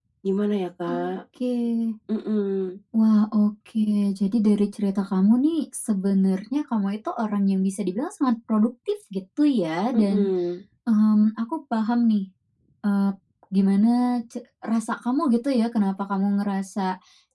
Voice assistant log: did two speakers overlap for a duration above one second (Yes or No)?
No